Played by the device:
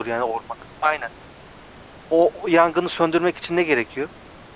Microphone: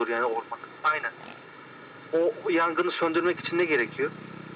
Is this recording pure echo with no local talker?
Yes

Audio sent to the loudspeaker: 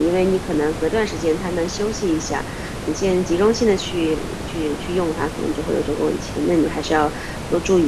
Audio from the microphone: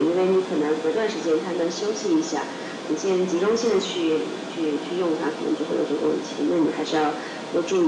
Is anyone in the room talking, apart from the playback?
No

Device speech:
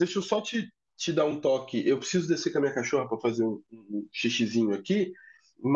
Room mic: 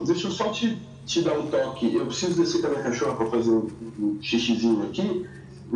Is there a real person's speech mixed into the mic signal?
No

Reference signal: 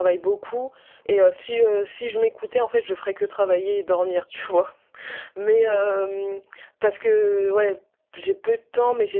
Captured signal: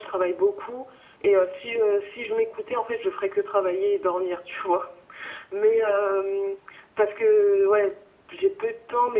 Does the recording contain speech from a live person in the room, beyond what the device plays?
No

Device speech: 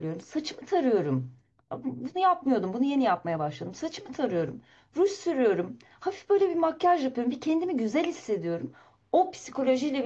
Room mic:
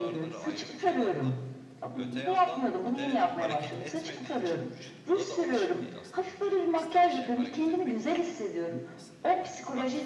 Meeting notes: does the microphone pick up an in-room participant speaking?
Yes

